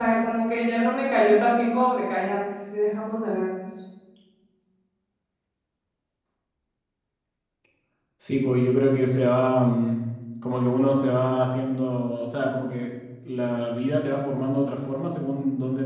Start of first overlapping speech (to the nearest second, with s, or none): none